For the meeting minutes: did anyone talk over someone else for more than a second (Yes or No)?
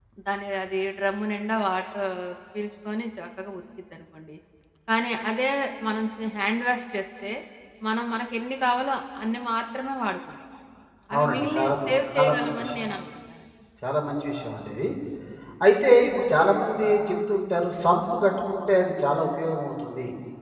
Yes